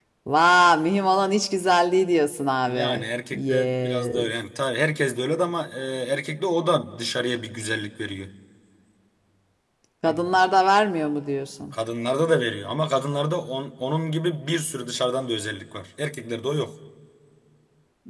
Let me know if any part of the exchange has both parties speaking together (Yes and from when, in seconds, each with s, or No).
Yes, from 2.7 s